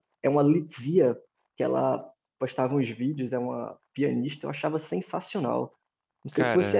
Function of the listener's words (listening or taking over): listening